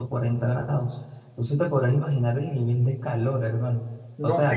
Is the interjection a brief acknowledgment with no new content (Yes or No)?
No